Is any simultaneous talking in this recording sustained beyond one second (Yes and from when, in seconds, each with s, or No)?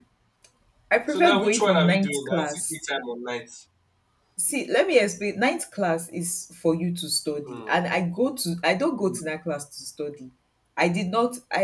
Yes, from 1.1 s